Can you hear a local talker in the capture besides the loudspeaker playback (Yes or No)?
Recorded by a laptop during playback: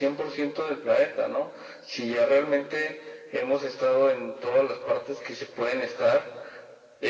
No